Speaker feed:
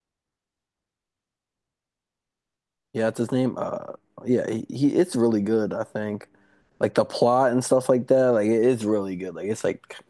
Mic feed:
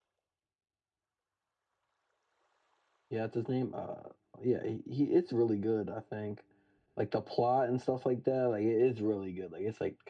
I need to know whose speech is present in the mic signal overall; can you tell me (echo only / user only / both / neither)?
echo only